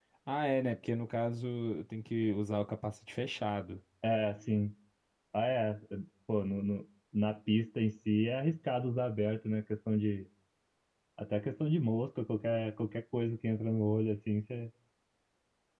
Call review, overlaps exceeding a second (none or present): none